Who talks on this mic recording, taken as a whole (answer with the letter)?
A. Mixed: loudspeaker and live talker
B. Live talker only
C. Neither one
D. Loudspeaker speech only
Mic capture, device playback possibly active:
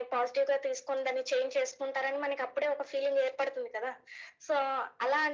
D